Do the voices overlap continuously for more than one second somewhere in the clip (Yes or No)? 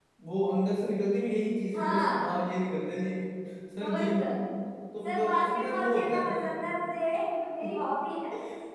Yes